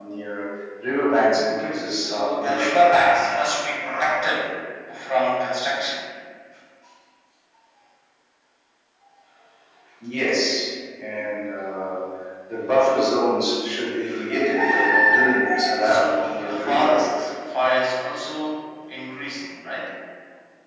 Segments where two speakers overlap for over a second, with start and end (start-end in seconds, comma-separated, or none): 1.3-2.8, 15.5-17.0